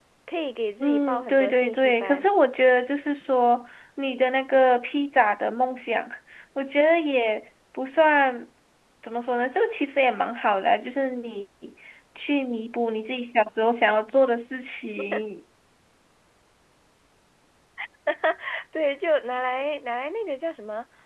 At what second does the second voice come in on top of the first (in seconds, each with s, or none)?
0.8 s